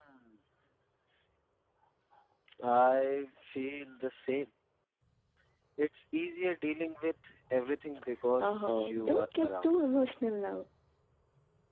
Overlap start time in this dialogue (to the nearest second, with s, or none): 8 s